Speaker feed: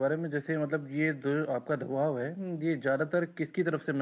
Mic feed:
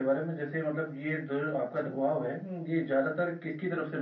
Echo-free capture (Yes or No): No